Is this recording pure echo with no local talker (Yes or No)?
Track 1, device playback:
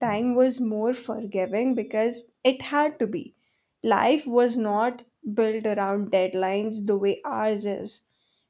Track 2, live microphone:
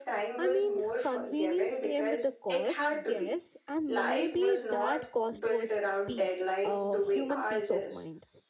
No